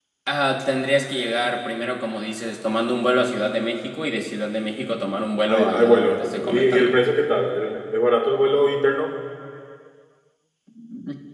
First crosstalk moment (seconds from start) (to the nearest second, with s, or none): 5 s